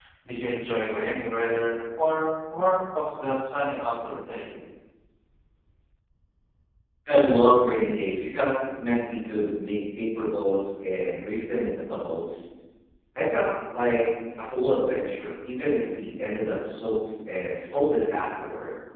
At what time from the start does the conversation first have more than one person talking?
none

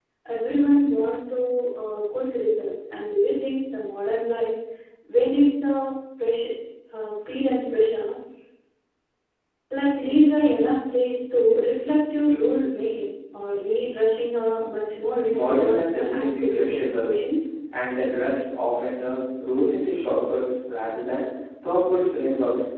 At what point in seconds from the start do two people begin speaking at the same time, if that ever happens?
15.3 s

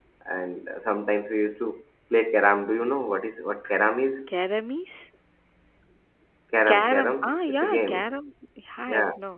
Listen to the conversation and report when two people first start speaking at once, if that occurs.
6.7 s

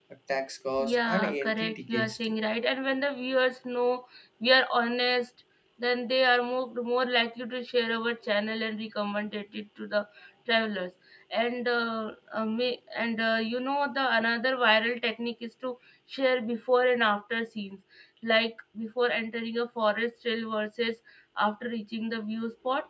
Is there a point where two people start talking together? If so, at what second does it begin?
0.8 s

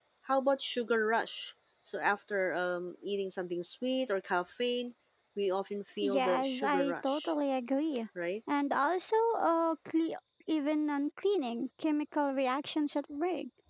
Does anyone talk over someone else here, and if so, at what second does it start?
6.0 s

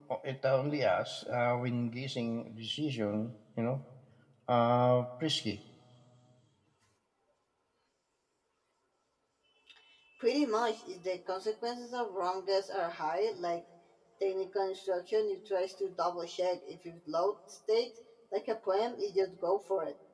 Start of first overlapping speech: none

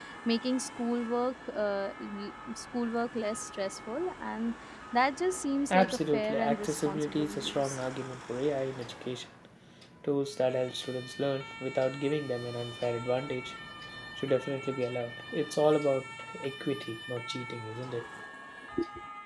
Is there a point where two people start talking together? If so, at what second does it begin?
5.7 s

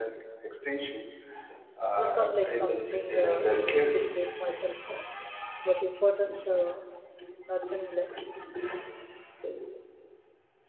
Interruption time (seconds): 2.0 s

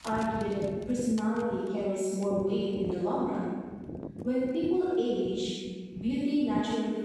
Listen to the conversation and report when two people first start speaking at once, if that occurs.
none

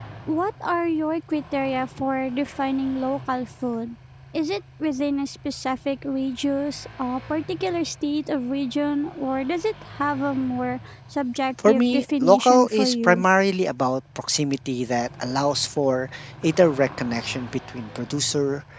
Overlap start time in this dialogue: 11.6 s

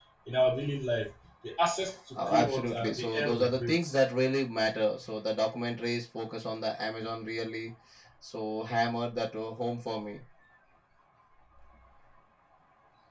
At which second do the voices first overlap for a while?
2.2 s

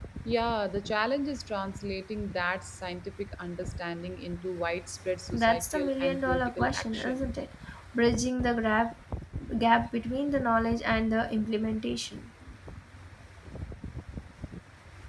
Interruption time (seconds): 5.3 s

